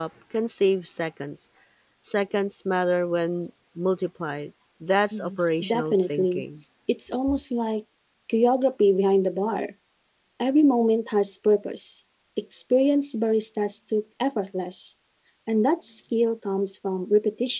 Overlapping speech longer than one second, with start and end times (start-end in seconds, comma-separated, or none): 5.1-6.4